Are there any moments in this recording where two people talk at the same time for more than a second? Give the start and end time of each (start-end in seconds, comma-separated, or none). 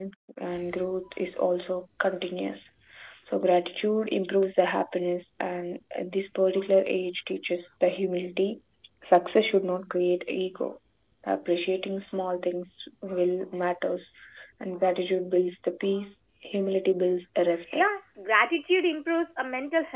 none